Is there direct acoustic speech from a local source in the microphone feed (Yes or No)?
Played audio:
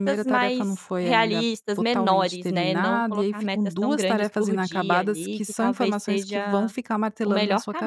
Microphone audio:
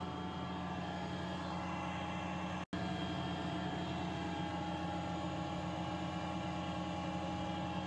No